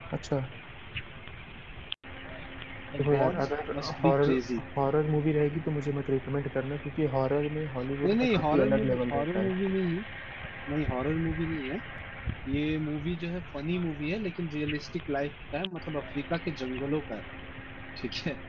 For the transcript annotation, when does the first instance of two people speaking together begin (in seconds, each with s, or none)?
3.0 s